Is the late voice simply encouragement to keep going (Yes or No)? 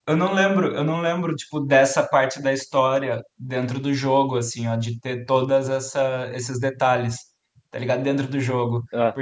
Yes